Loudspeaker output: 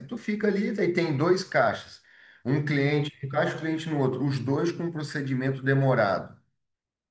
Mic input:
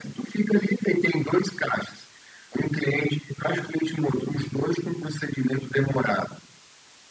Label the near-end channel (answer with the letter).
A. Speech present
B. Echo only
B